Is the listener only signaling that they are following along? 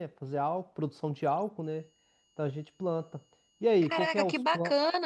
No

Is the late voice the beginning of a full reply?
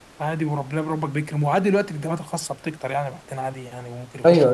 Yes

